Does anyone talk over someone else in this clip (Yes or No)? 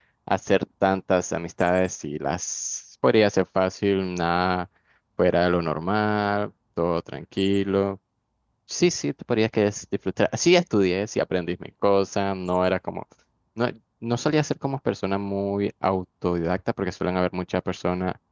No